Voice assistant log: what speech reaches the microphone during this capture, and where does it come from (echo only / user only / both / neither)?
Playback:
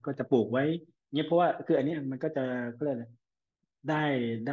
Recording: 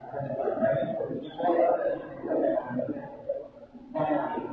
echo only